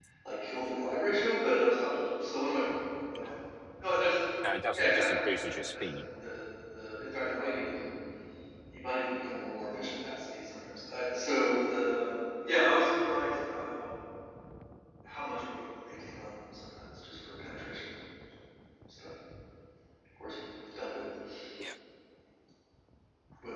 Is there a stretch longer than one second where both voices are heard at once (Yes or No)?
Yes